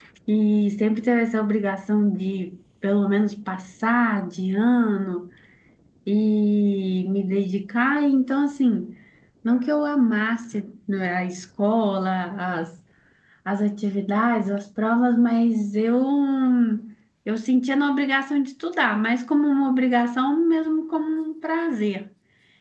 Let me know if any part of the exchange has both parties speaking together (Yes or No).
No